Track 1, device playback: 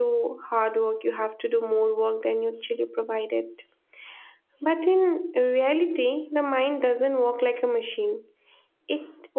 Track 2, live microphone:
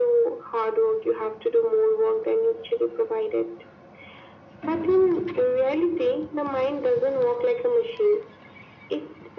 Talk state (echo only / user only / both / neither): echo only